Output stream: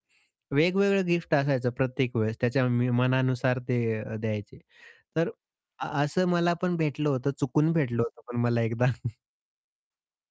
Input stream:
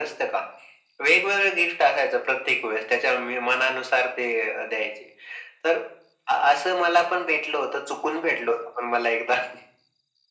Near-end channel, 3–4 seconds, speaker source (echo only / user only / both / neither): echo only